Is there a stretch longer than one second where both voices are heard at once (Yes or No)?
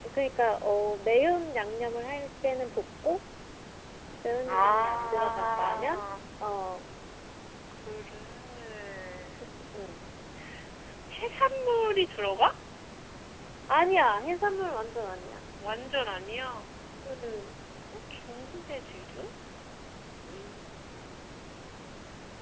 Yes